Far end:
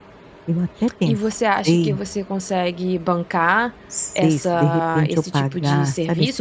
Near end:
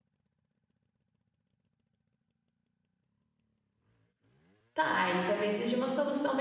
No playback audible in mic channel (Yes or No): Yes